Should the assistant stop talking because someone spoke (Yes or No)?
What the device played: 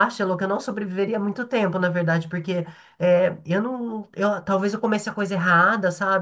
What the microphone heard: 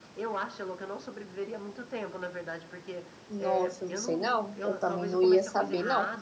Yes